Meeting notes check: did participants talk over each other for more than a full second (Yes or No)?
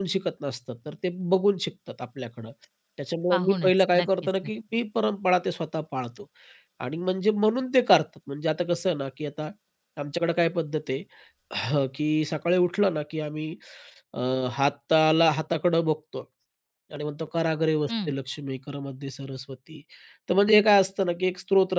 Yes